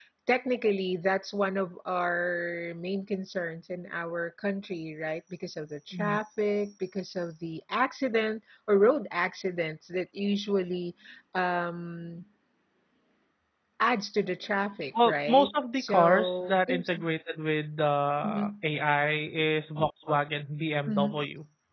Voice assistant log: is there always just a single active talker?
No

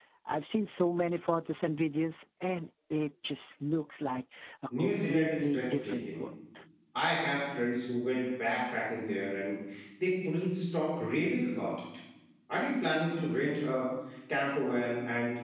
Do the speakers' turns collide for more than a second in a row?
Yes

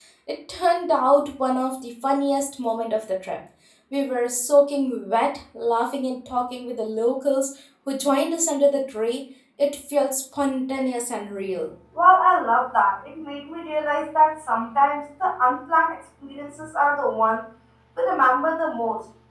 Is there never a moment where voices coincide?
Yes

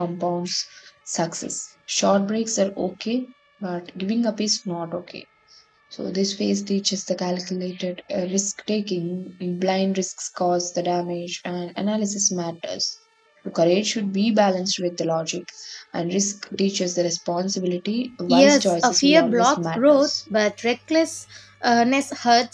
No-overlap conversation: No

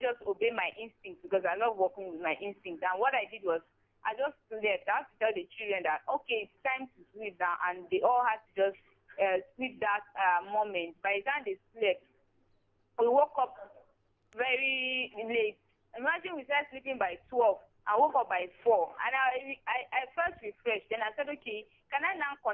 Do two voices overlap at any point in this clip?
No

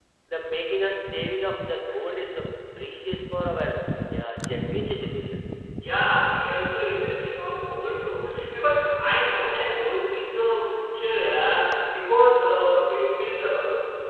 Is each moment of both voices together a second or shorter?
Yes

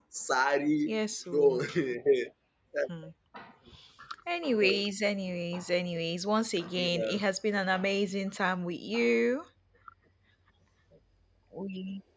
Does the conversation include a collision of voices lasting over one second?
No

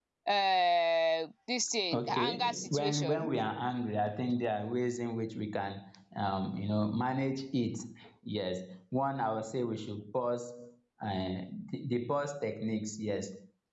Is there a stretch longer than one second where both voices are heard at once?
Yes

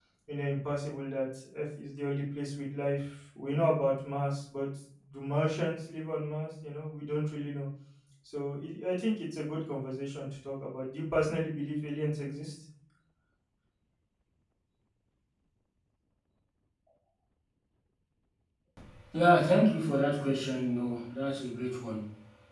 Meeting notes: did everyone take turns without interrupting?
Yes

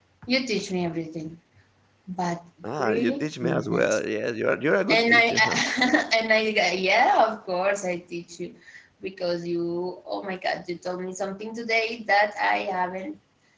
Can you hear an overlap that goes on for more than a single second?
Yes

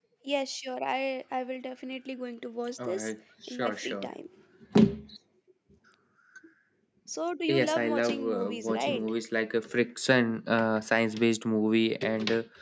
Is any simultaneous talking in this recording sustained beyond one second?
Yes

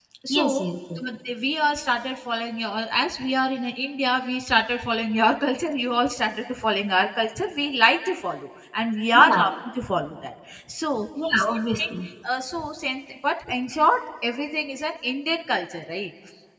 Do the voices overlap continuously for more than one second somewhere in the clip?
No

